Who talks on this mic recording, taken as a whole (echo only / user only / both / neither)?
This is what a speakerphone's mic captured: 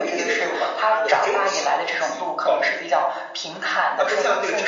echo only